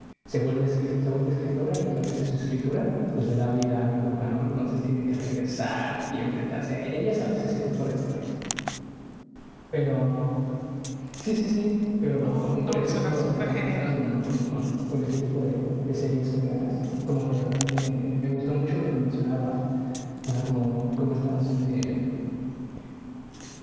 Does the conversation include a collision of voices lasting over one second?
Yes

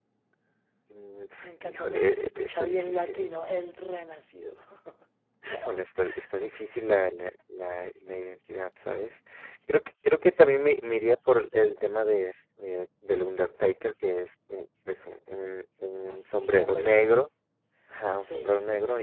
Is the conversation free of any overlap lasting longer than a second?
No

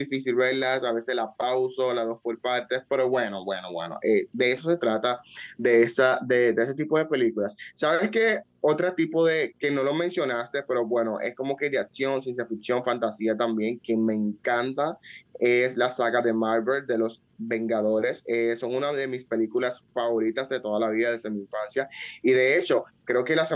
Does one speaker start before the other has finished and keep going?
No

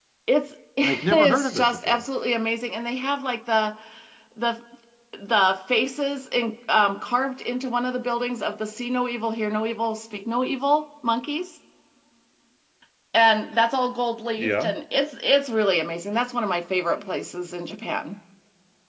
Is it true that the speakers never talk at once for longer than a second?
No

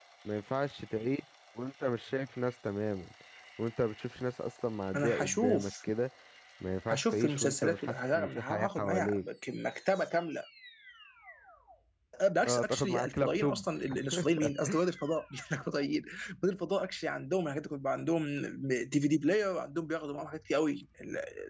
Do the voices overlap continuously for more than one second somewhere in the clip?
Yes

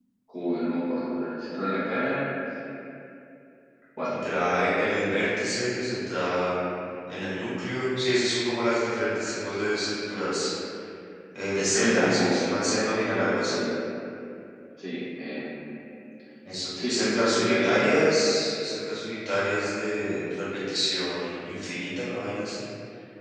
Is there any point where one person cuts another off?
Yes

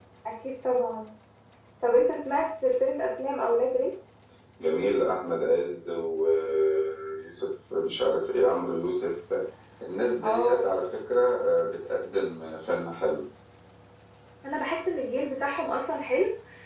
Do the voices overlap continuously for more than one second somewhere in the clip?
No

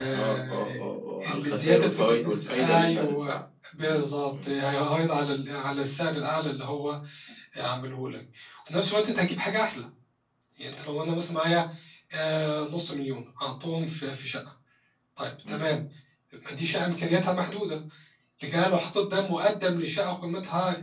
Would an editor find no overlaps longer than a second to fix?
No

